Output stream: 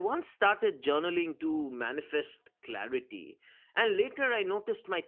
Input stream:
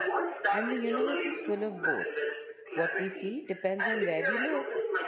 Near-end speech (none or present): present